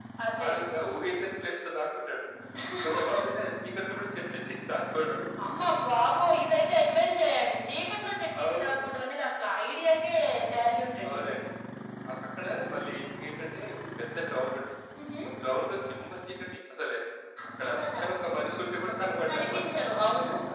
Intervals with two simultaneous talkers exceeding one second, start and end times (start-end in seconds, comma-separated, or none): none